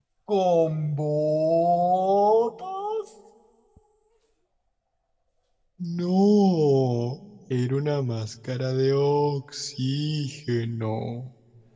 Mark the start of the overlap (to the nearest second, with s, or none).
none